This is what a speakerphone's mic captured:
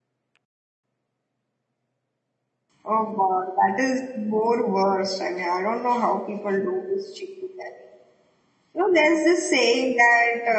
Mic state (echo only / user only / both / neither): user only